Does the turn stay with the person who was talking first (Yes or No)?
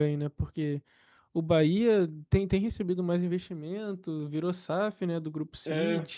No